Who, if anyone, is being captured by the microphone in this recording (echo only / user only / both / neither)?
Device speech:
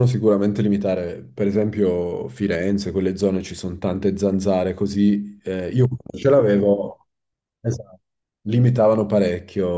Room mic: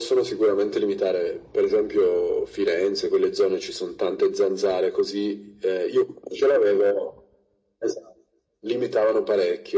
echo only